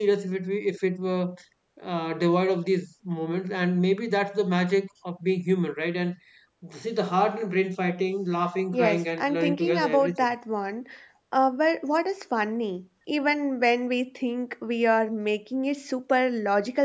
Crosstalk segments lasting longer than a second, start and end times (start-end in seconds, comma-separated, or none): 8.7-10.2